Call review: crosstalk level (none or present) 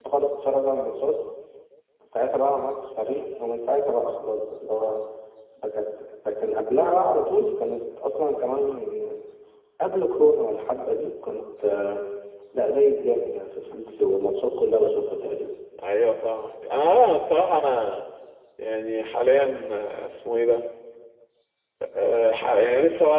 none